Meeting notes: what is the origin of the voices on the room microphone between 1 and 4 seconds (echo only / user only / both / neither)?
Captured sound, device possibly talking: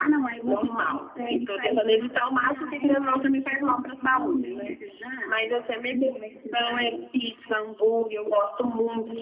echo only